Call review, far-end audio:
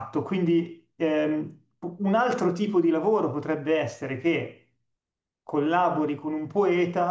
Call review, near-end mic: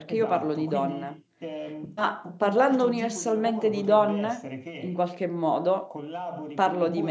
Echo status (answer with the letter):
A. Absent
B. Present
B